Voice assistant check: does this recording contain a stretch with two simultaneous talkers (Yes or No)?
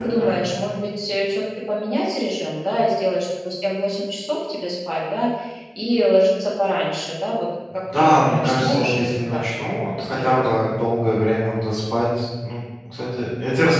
Yes